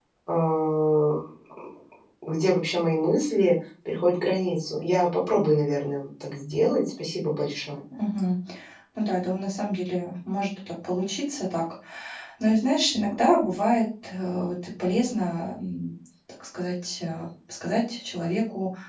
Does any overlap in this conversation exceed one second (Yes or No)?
No